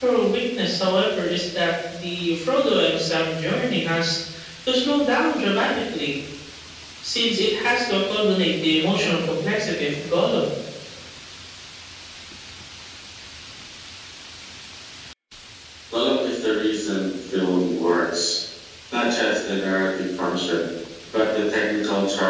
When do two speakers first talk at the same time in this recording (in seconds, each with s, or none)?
none